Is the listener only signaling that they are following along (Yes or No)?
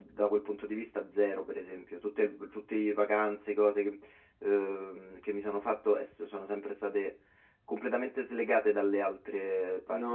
No